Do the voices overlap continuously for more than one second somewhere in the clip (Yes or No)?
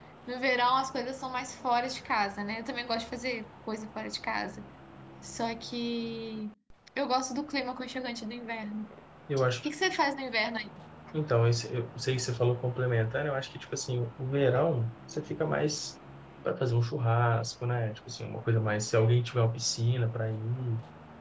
No